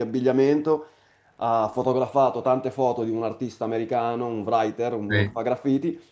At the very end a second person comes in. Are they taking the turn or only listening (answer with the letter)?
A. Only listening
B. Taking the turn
A